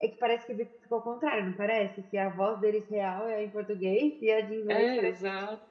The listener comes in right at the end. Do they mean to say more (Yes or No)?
Yes